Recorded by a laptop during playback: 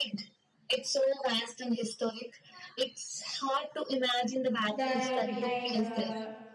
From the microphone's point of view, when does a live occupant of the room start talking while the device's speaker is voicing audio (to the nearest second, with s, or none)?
5 s